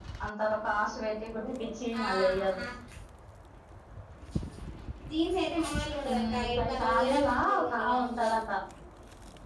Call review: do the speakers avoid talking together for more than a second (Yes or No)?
No